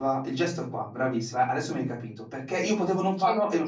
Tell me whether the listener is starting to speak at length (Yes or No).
No